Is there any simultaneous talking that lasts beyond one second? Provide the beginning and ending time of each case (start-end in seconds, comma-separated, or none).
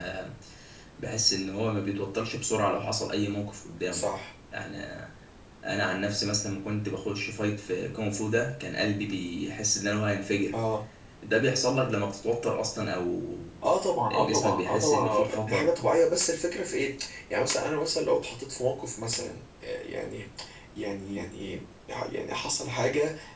14.1-15.8